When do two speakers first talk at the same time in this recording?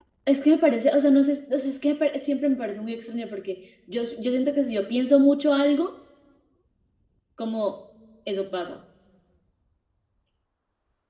none

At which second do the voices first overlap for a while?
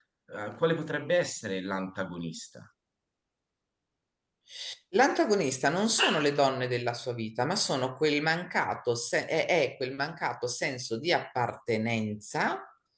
none

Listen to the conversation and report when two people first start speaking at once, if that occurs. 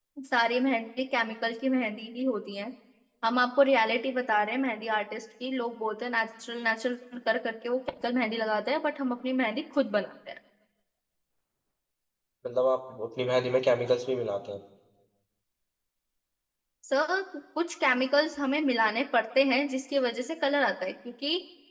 none

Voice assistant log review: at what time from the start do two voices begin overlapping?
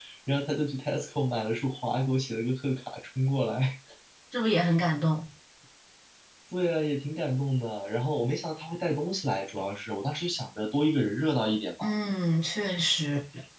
none

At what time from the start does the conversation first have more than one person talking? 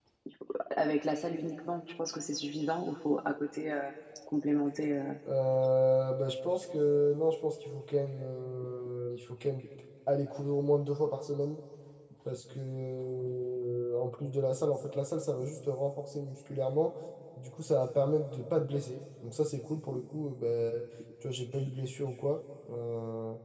none

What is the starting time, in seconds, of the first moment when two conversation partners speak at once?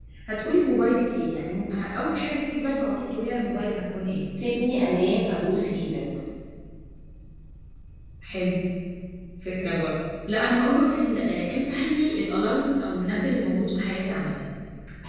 none

